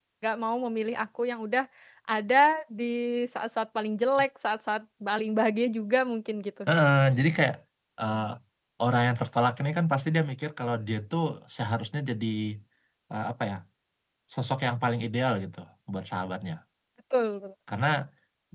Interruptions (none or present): none